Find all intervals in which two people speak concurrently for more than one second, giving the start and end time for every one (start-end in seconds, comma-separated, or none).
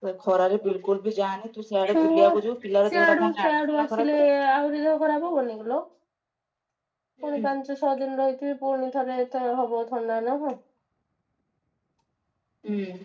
2.9-4.2